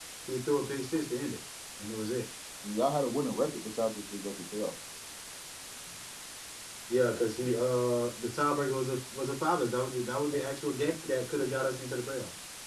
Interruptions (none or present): none